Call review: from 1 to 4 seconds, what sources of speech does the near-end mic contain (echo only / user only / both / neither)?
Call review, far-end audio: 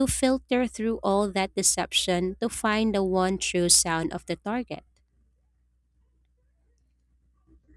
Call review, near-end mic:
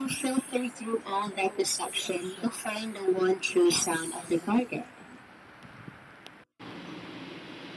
echo only